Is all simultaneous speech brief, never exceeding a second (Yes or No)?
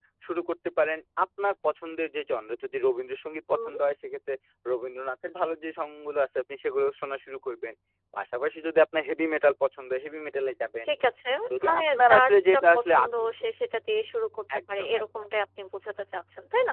No